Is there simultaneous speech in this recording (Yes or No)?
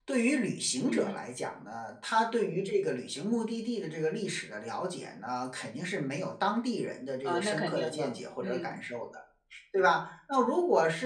Yes